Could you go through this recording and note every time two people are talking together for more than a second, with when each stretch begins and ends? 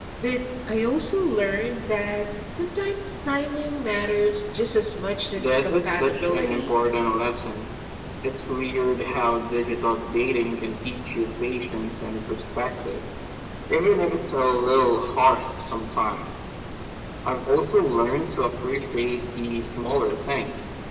5.3-6.8

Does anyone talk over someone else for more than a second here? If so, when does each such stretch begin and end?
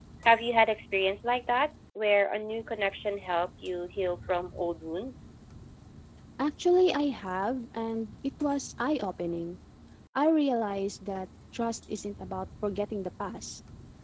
none

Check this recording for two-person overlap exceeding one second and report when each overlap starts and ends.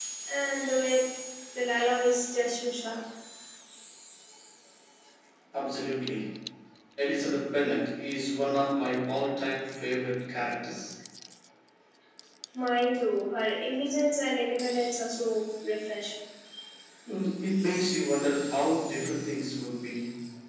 none

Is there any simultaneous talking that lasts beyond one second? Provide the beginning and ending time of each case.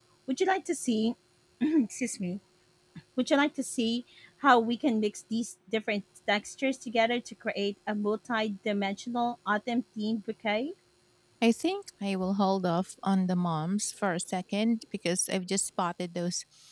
none

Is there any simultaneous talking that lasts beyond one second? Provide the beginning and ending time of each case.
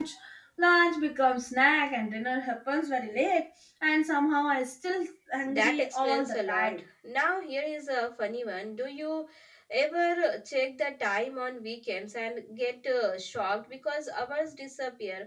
5.4-6.8

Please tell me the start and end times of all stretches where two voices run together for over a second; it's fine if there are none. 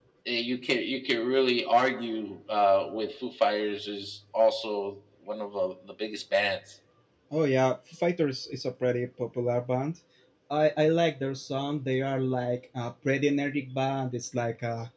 none

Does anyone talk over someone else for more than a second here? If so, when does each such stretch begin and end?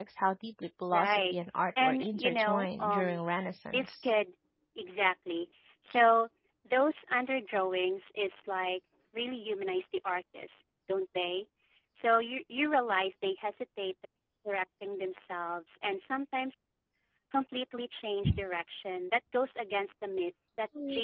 1.8-3.2

